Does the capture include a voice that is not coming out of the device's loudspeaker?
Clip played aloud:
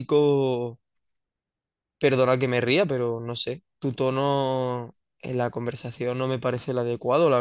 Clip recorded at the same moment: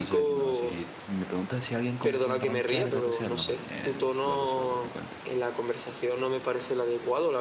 Yes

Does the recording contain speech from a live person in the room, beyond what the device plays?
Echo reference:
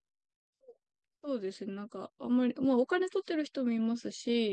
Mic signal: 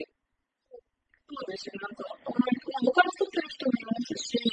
No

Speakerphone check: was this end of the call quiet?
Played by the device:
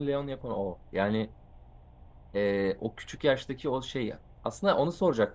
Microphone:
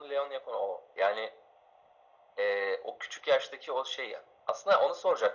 Yes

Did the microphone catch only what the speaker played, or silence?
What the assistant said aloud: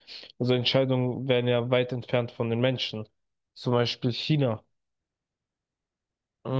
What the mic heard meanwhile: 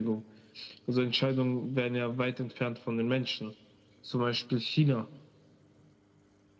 Yes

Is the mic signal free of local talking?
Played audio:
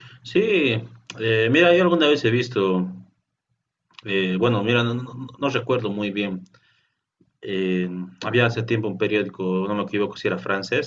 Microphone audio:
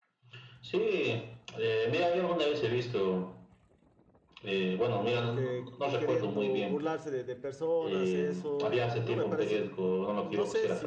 No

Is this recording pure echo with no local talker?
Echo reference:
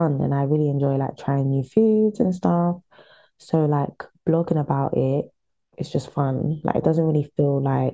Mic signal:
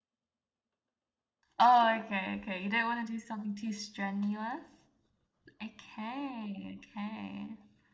No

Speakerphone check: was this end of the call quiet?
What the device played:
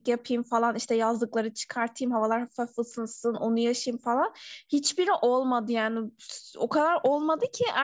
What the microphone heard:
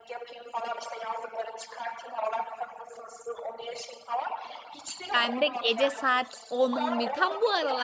No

